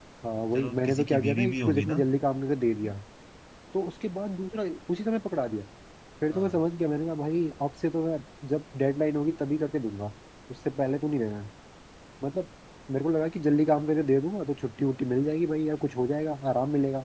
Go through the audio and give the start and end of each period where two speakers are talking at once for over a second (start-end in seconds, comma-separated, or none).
0.5-1.9